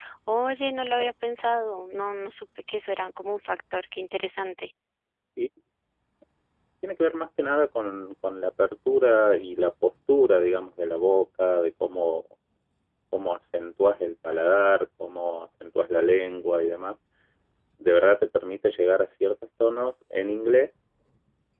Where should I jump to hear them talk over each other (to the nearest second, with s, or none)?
none